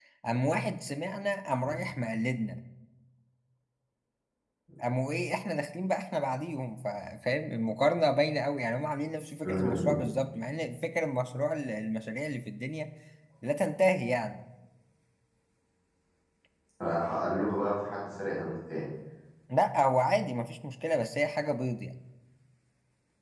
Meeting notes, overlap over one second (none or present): none